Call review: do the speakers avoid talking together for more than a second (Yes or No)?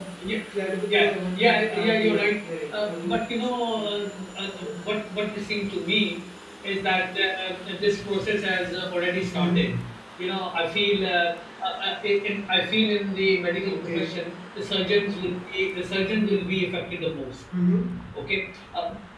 No